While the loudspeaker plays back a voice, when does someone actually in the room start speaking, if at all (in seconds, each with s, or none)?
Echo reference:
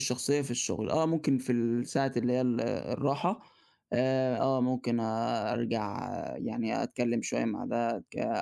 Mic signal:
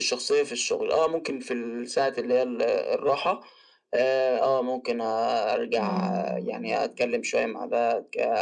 5.8 s